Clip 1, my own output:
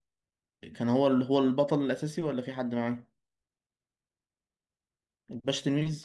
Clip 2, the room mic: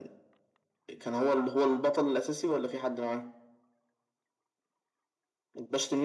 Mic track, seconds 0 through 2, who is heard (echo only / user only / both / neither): echo only